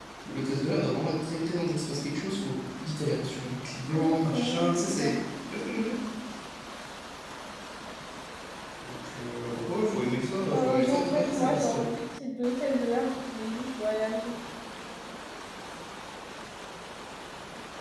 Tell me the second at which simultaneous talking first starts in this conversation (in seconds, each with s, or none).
3.9 s